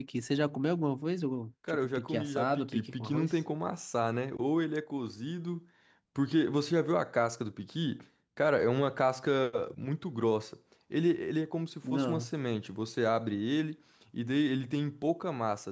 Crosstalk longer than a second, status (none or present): present